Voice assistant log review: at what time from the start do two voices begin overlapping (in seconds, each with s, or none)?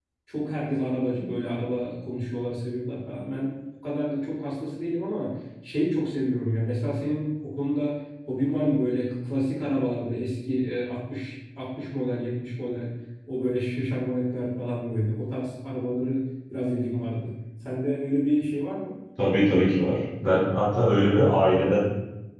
none